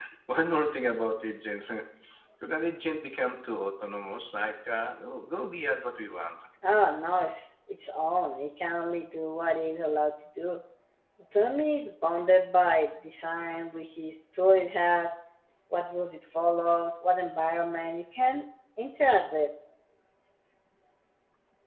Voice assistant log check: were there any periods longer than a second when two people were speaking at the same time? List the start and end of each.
none

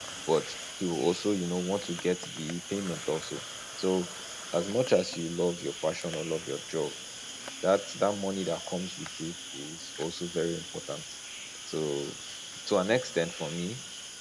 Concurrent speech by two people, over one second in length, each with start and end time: none

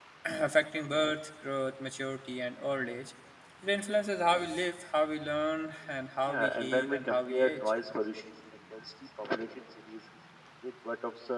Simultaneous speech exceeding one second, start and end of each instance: 6.3-7.7

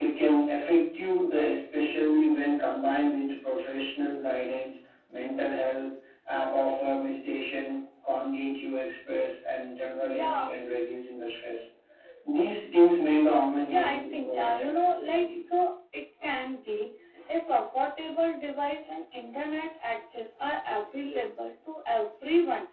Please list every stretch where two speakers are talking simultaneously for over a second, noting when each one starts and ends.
13.6-15.3

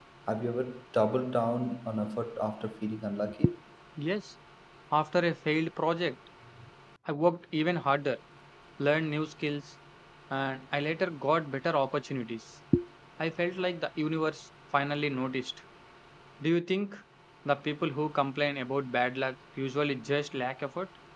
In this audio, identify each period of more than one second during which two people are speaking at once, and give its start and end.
none

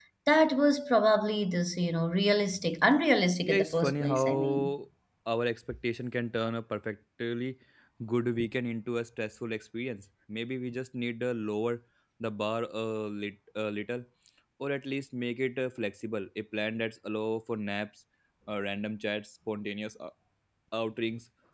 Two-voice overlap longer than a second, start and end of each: 3.4-4.7

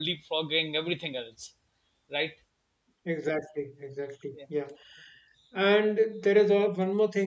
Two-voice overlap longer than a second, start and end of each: none

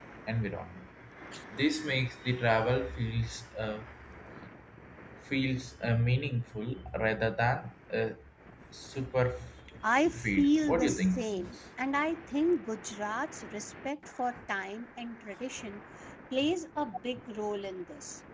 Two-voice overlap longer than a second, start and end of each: 10.2-11.5

